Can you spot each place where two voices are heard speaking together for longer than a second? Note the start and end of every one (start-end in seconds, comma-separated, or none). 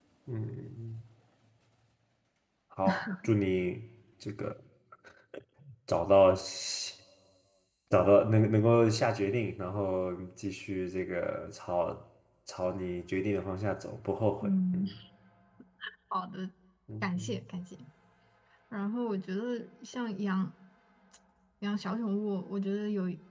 none